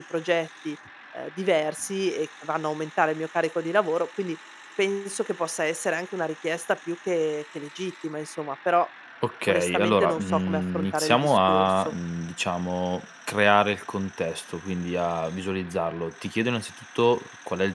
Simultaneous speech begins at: 9.5 s

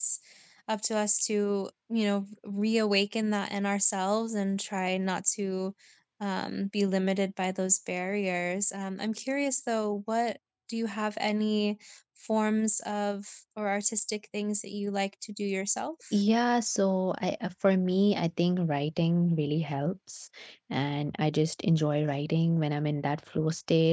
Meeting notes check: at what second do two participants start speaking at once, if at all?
none

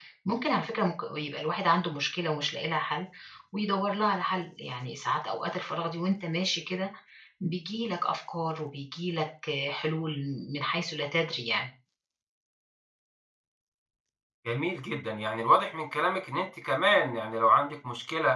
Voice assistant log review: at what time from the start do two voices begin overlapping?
none

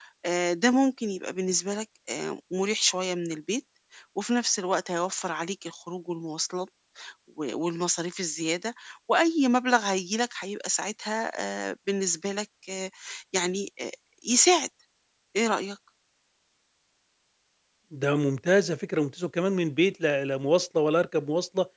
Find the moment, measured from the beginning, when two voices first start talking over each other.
none

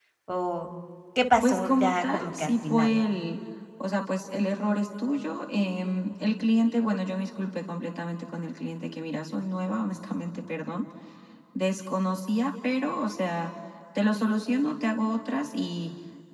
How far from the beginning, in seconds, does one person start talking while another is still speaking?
1.4 s

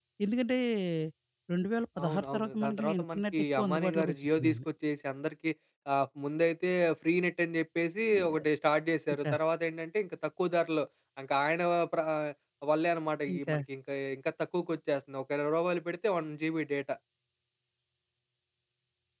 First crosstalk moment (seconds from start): 2.0 s

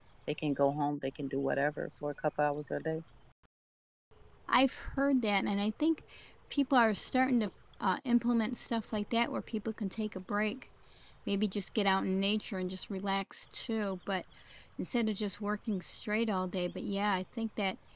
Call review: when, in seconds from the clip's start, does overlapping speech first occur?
none

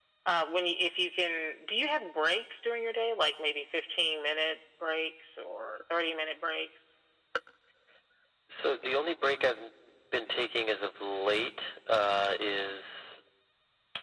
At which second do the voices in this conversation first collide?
none

